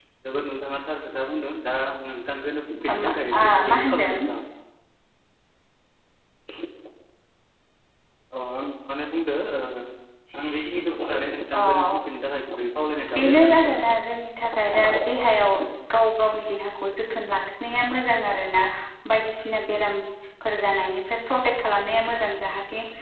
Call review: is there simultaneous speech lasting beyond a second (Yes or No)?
Yes